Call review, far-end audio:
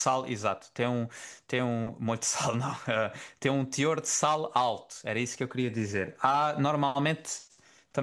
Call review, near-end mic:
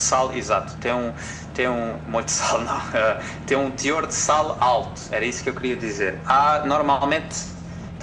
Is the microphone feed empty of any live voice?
Yes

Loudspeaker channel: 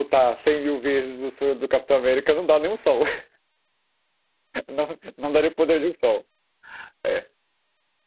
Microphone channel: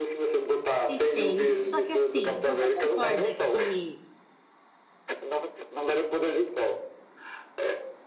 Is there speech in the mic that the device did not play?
Yes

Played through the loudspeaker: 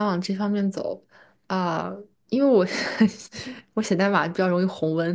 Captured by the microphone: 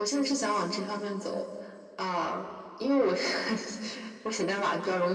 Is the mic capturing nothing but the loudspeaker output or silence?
Yes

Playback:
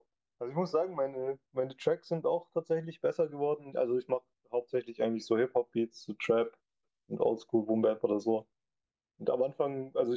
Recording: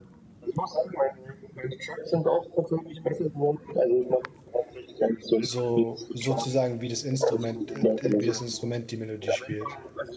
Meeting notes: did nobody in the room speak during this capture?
No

